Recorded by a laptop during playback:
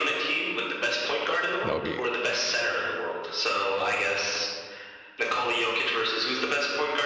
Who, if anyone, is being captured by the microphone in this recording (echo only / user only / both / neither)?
both